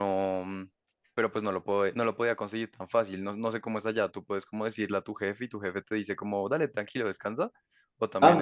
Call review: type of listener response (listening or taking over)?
taking over